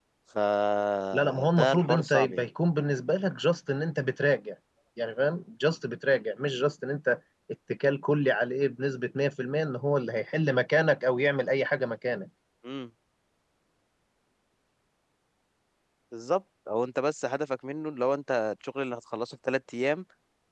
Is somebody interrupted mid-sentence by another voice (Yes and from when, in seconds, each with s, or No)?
Yes, from 1.1 s